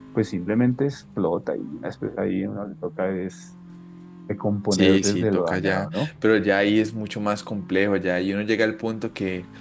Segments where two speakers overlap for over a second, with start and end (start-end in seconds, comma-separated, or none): 4.7-6.1